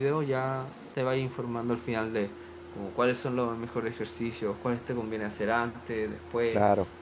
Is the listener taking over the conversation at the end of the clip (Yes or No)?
No